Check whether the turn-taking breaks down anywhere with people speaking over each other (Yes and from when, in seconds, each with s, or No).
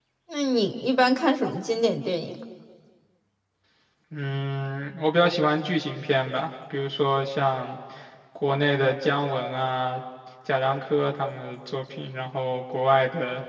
No